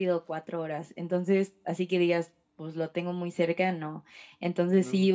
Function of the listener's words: listening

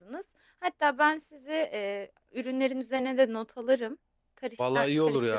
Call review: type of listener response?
taking over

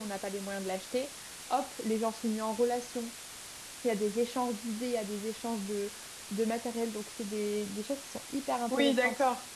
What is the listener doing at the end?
taking over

